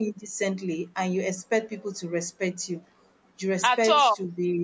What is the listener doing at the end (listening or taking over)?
listening